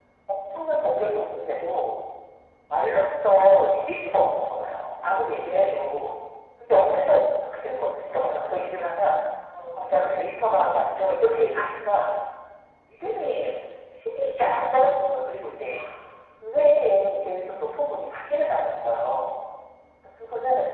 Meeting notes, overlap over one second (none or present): none